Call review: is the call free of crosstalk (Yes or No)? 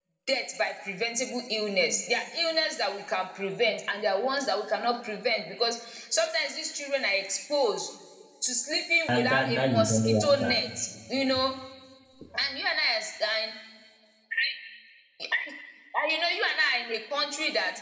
No